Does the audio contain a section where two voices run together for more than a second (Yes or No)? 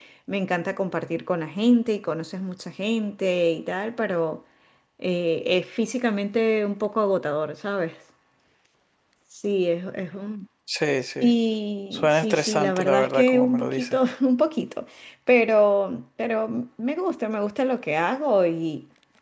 Yes